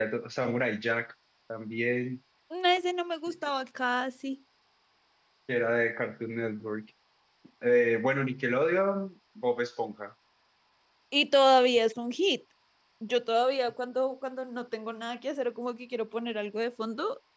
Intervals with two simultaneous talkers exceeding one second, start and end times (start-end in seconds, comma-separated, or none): none